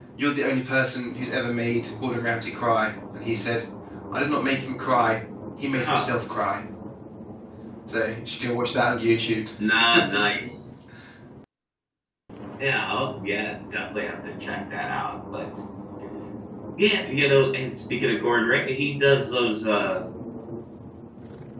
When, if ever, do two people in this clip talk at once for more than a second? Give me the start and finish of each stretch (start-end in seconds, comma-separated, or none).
none